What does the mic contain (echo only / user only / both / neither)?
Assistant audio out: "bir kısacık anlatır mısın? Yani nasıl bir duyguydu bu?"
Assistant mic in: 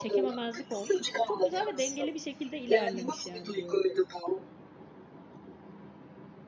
both